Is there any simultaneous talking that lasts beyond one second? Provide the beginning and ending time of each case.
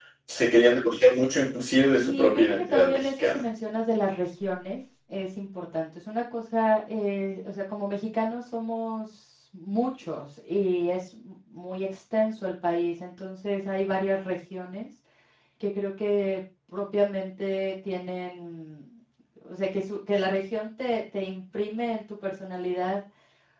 2.0-3.4

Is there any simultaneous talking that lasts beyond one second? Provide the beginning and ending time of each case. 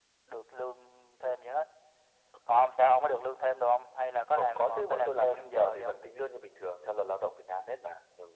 4.3-6.0

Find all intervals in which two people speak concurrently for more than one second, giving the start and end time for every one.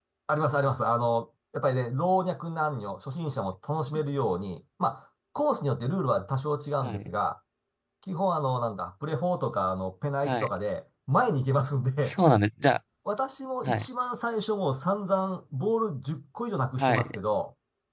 none

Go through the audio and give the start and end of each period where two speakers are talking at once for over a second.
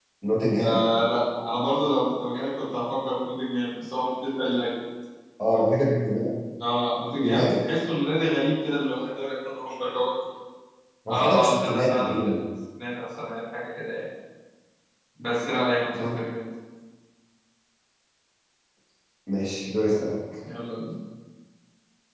11.1-12.4

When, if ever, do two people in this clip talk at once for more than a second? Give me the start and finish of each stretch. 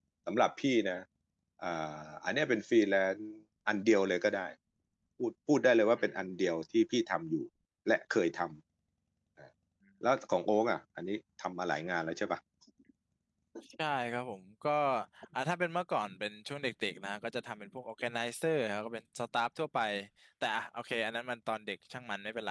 none

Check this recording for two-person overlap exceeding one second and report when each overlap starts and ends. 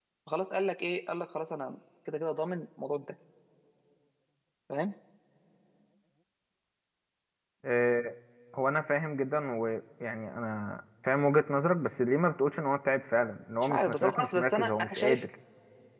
13.6-15.2

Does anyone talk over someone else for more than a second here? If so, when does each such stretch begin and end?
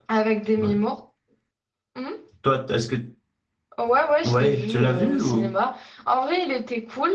4.2-5.5

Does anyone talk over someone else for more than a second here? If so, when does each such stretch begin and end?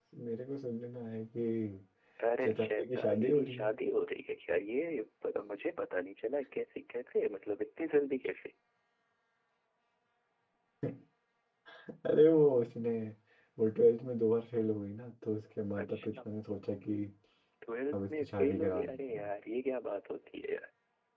2.4-3.7, 17.9-19.3

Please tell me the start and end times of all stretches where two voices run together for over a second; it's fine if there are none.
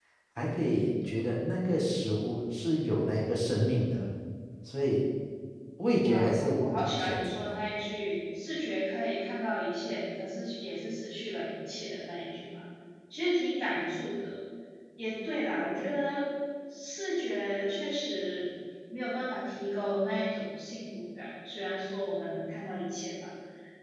6.0-7.4

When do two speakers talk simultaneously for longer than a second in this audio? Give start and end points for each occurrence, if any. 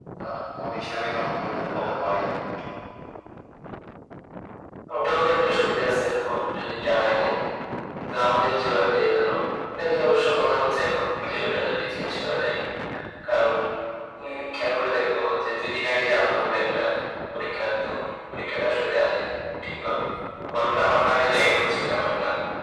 none

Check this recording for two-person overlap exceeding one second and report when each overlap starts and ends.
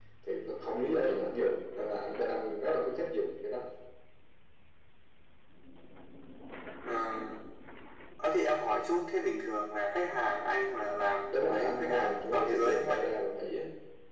11.3-13.0

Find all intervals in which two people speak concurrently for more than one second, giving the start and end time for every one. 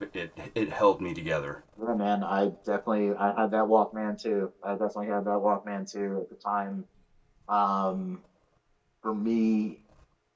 none

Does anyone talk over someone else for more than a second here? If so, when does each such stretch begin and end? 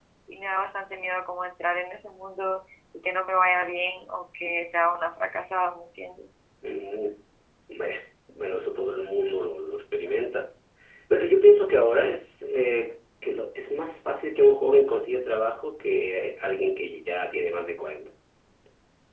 none

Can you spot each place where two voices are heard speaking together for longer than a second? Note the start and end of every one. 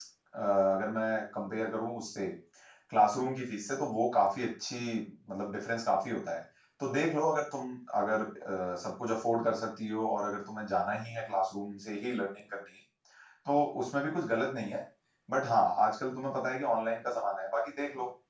none

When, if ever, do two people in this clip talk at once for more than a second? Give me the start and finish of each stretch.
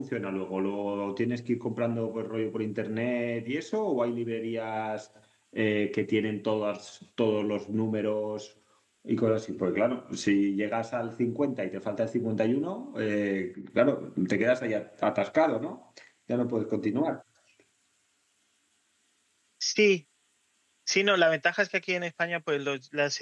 none

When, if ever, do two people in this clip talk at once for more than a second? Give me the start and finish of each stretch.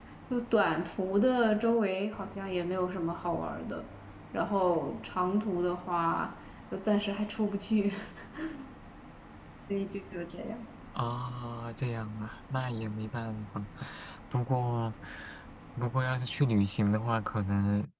none

